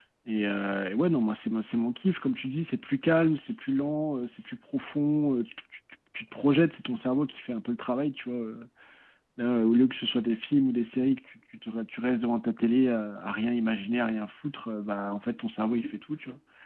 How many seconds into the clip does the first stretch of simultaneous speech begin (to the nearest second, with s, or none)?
none